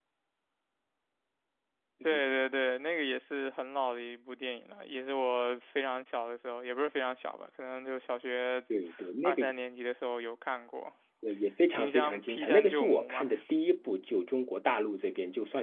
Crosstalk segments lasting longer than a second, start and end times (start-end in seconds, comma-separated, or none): 11.7-13.3